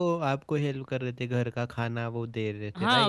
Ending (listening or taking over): taking over